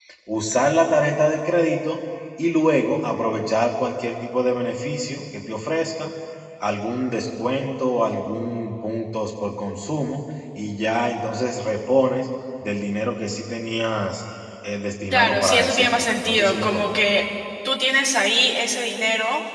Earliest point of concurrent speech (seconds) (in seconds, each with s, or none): 15.1 s